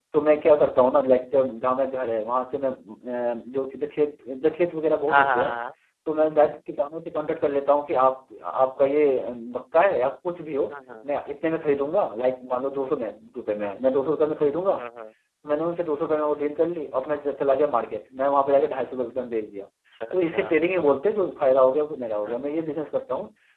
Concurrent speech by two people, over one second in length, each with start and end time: none

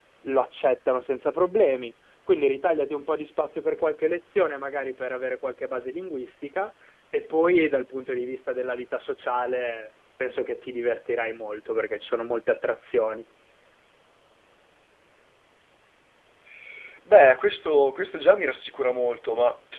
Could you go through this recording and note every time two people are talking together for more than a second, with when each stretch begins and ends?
none

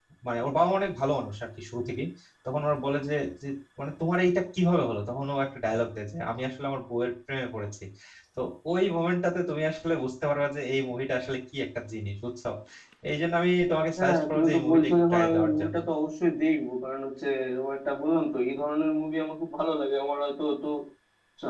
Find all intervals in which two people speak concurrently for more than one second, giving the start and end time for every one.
14.0-15.8

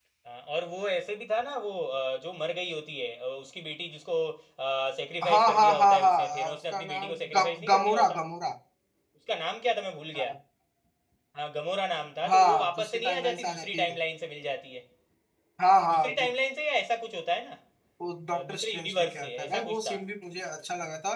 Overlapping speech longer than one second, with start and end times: 5.3-8.2, 12.3-13.9, 18.3-20.0

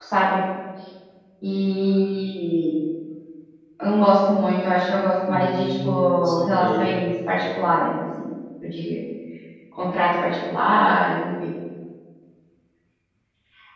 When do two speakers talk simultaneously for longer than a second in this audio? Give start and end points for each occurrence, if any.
5.3-6.9

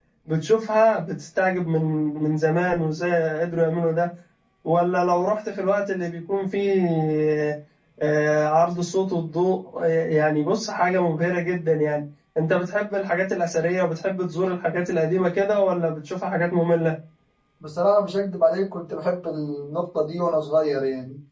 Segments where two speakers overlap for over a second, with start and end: none

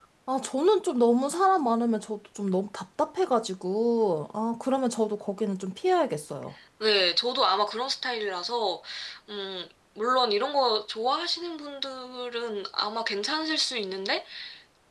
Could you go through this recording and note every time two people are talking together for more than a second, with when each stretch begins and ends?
none

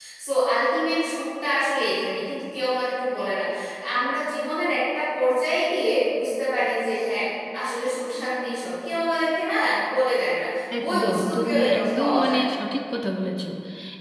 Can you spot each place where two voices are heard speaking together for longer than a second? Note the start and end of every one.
10.8-12.4

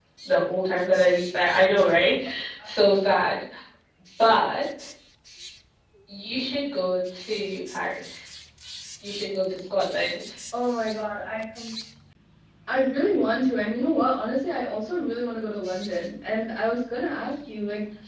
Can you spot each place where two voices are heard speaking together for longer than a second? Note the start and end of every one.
none

